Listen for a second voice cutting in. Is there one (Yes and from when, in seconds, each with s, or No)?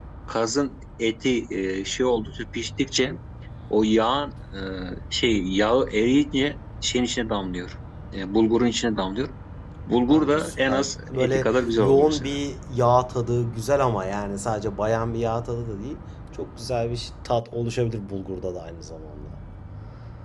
Yes, from 10.1 s